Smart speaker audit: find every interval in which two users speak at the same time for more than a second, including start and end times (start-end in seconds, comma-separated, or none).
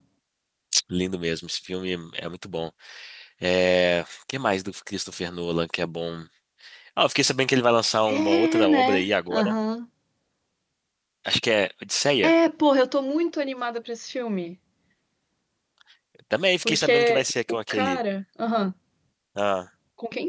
8.1-9.5, 16.6-18.0